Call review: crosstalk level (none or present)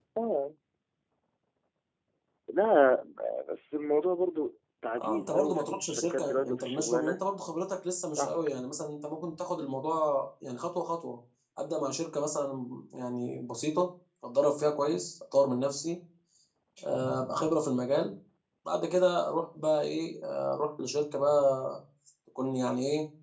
present